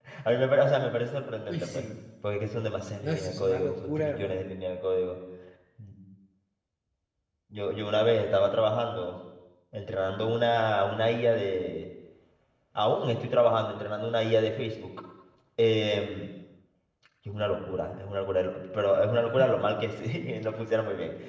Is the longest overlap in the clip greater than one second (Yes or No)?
Yes